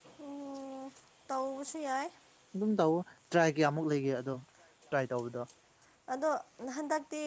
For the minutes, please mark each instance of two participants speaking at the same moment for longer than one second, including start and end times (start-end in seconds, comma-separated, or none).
none